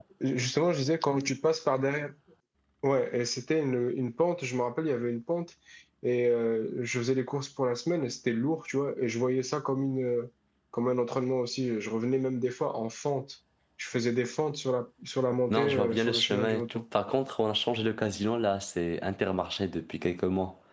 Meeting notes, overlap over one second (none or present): present